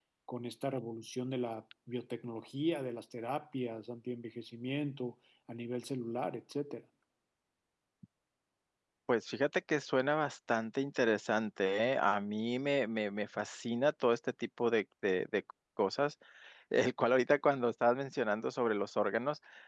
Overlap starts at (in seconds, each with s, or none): none